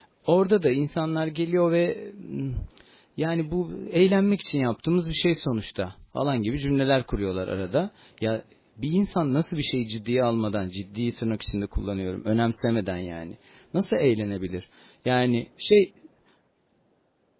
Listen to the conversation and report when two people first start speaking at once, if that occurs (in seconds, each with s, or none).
none